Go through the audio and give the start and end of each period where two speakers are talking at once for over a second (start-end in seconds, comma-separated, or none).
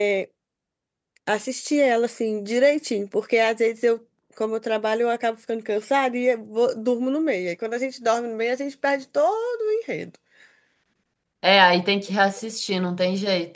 none